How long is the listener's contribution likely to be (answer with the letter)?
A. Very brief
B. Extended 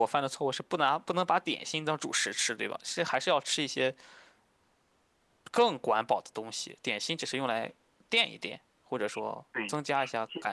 B